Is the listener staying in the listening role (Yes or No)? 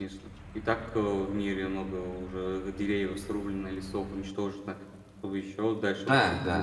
No